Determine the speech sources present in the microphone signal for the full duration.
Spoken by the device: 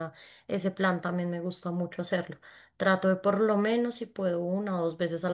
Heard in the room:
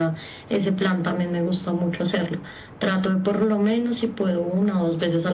echo only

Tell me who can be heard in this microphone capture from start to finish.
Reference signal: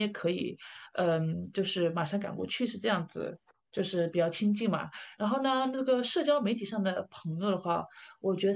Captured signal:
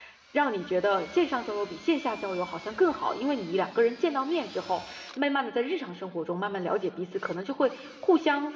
user only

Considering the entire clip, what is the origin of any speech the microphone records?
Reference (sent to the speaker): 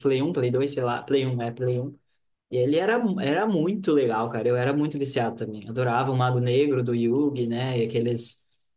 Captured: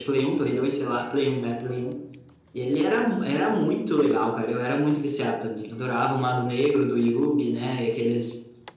echo only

